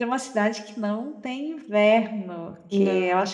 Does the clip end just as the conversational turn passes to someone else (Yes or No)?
No